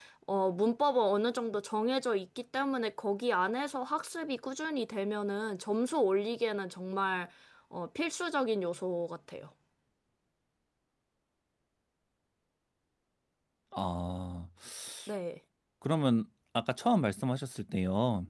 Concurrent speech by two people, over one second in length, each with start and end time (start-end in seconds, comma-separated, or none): none